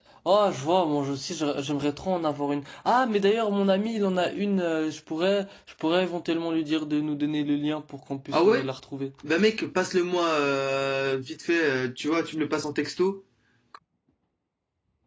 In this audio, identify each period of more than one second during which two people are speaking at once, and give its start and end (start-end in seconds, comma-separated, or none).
none